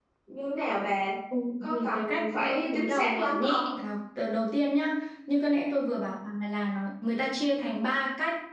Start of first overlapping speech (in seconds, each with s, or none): 1.6 s